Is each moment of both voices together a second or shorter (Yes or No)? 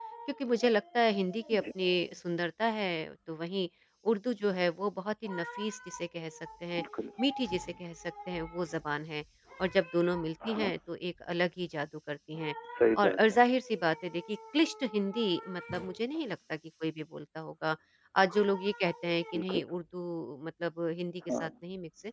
Yes